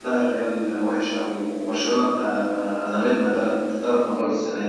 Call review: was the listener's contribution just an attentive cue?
Yes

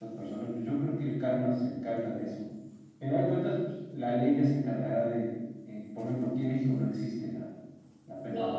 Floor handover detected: Yes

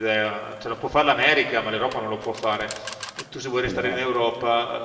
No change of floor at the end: Yes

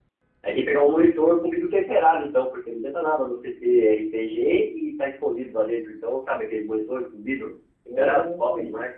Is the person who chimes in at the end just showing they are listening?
No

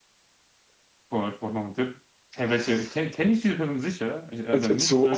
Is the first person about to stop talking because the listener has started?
Yes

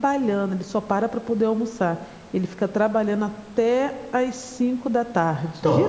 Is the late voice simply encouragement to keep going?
No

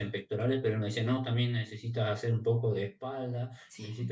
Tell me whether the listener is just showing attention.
Yes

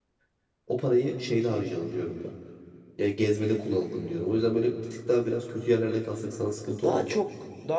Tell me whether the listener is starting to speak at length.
Yes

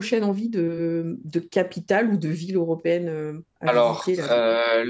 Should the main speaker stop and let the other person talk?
Yes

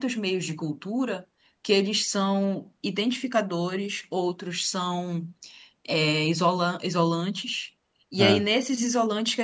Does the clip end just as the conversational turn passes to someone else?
No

